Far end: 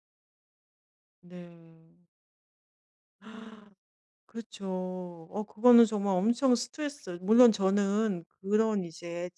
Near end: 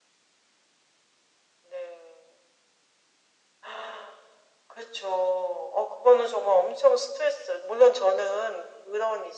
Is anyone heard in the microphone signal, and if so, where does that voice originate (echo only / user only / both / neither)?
echo only